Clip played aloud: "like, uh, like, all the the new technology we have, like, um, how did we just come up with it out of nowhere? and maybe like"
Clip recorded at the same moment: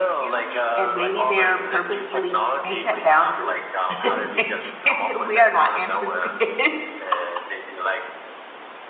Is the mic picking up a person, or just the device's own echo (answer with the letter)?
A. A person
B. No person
A